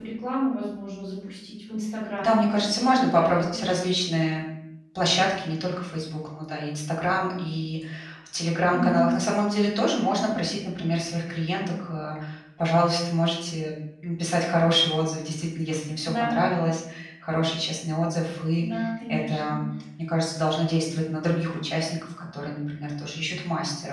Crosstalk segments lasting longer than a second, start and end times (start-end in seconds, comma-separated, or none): 2.2-3.9